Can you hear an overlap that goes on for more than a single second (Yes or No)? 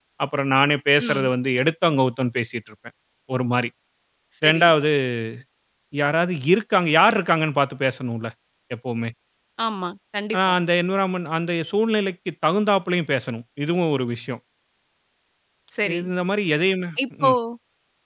No